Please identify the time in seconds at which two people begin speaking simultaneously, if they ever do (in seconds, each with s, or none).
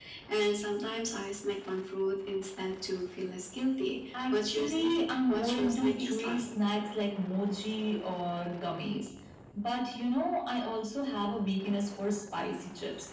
4.1 s